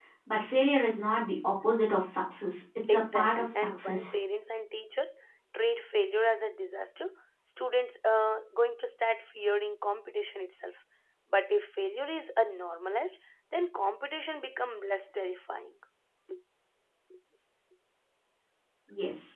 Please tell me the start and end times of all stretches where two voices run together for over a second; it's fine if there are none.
2.9-4.1

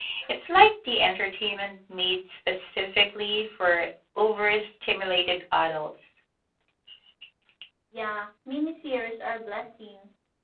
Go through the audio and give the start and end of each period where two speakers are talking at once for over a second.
none

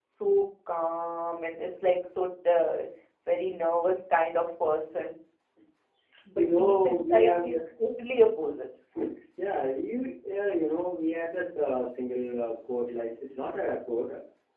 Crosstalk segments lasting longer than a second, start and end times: 6.3-7.6

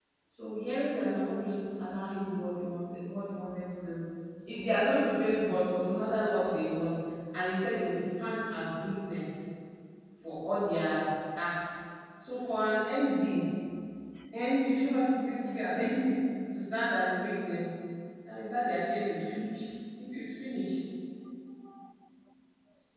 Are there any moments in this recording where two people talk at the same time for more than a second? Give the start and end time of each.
none

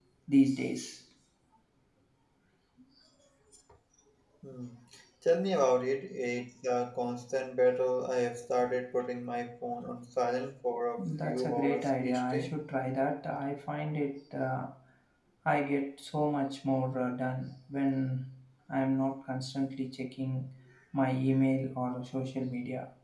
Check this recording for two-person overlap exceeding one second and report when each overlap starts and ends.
11.0-12.5

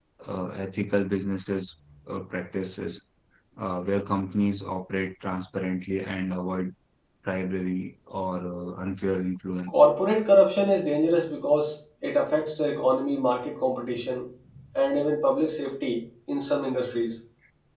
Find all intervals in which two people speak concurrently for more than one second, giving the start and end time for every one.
none

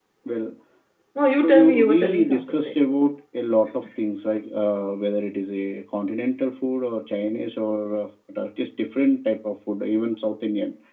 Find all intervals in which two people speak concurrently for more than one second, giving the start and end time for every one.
1.4-2.8

